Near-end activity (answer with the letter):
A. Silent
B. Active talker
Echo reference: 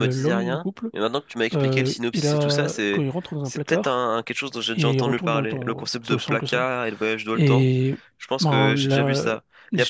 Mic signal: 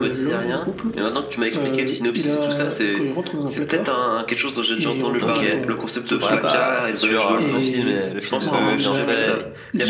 B